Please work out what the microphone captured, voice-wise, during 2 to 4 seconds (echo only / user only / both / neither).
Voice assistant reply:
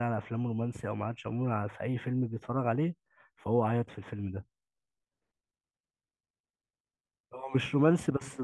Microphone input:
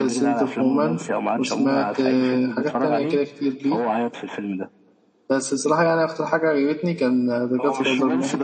both